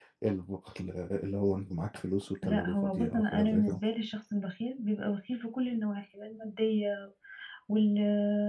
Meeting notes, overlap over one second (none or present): present